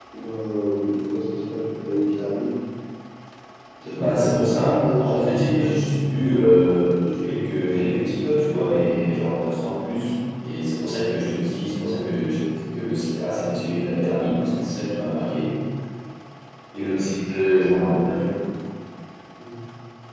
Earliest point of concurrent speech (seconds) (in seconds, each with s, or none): 3.9 s